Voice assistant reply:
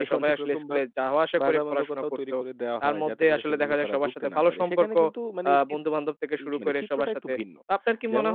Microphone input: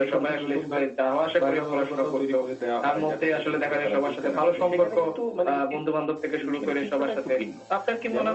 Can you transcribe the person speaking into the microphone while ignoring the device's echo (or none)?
none